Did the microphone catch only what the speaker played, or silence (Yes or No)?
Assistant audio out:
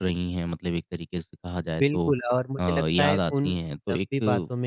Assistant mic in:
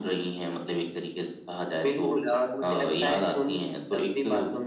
Yes